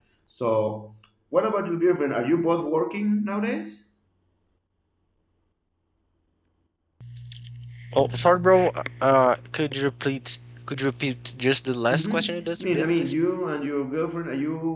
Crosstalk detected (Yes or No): Yes